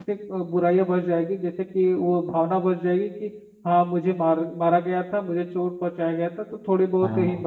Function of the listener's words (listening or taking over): listening